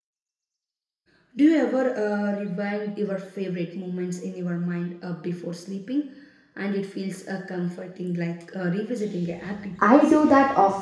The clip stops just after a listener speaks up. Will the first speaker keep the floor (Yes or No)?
No